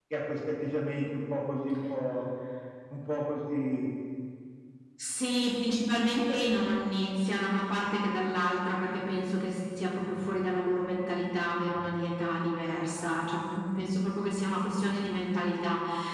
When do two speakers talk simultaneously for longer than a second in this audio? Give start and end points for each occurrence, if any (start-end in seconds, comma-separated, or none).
none